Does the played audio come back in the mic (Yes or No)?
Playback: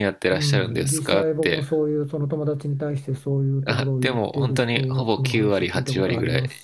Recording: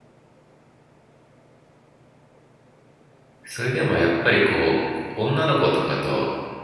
No